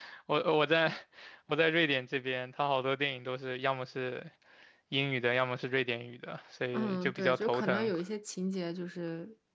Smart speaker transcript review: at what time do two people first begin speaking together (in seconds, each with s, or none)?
6.7 s